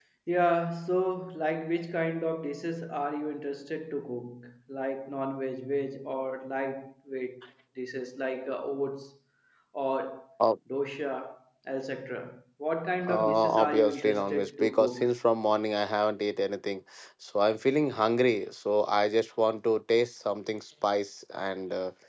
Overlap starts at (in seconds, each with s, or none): 13.1 s